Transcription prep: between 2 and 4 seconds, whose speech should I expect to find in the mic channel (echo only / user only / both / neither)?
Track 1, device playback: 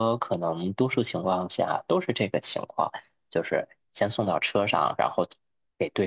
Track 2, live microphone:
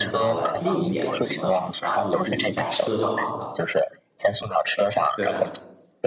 both